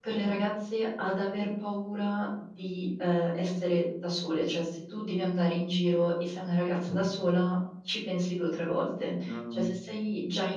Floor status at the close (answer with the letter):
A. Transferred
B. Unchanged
B